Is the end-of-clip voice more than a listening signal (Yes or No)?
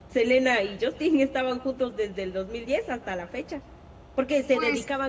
No